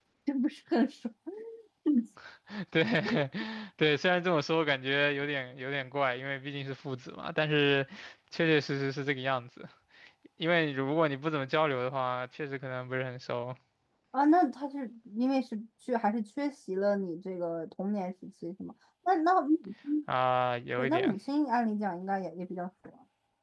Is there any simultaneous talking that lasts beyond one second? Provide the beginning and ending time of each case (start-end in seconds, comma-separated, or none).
none